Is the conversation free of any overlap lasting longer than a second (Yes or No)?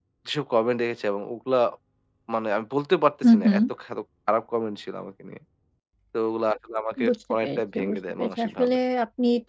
No